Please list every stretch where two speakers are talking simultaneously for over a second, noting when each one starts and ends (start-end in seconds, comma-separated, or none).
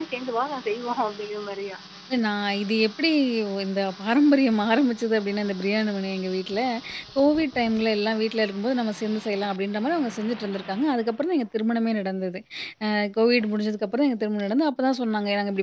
none